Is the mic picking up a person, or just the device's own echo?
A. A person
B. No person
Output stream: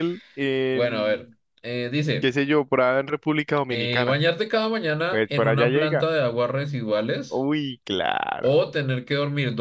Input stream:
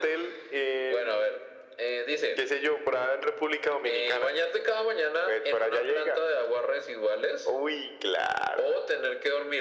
B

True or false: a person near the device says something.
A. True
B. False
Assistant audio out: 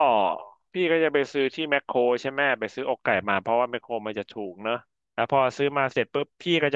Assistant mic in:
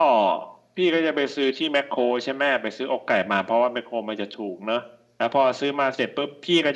B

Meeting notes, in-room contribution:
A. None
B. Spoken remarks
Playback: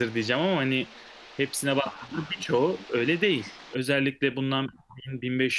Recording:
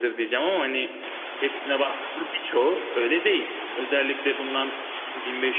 A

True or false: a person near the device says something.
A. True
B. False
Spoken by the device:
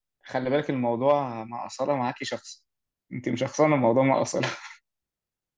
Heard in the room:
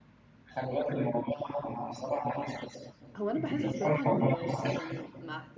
A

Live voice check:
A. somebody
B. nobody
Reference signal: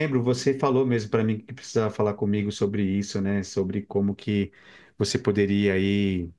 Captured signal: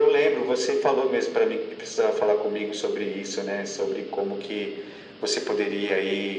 B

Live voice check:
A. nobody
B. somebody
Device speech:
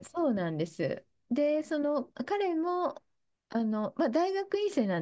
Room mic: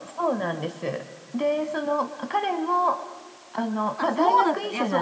B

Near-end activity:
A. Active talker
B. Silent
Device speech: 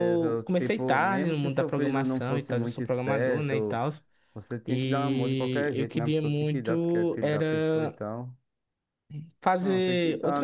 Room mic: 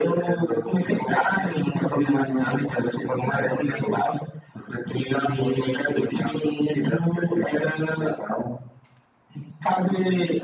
B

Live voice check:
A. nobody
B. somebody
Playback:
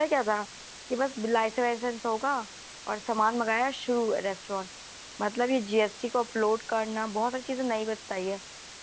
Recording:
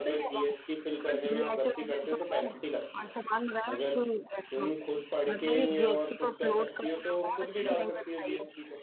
B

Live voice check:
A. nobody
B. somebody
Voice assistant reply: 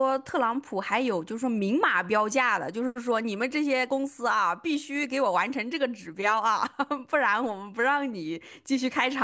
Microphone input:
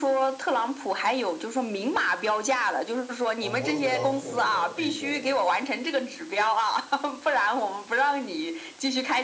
B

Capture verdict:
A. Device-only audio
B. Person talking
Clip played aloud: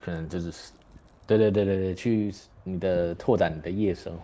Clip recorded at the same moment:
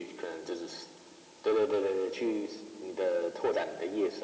A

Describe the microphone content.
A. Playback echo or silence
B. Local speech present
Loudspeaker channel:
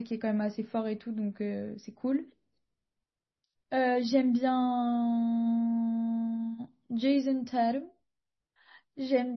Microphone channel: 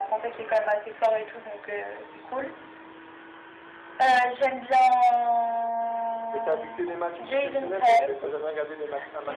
B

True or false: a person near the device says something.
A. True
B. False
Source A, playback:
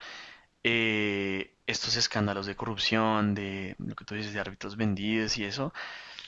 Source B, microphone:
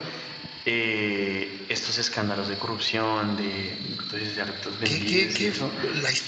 A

